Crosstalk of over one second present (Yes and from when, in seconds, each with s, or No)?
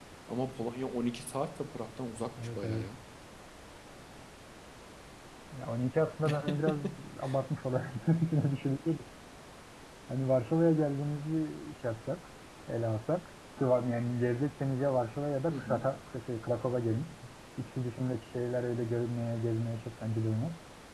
No